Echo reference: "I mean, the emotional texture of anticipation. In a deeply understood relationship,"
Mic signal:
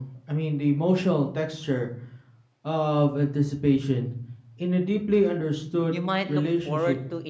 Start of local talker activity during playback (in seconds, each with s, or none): 5.9 s